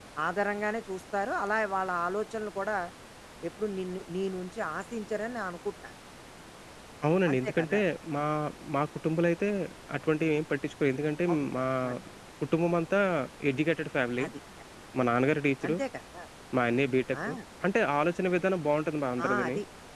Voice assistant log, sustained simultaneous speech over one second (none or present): none